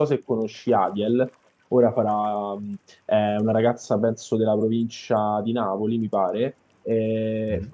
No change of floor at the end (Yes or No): Yes